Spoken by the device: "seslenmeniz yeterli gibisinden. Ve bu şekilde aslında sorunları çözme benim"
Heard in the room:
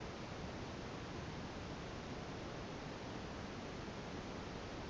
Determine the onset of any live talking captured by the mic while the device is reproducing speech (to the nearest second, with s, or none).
none